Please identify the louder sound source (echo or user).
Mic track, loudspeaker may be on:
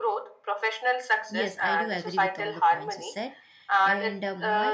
echo